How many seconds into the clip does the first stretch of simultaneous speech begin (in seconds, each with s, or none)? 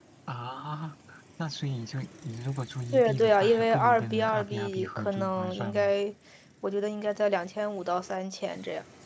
2.9 s